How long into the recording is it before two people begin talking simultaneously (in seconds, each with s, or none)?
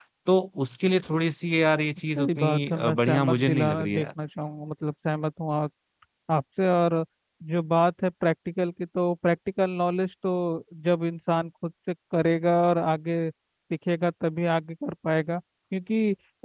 2.2 s